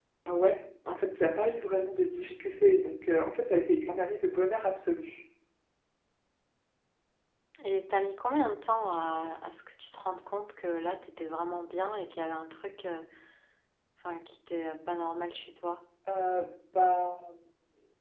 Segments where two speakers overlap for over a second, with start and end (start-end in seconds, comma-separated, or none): none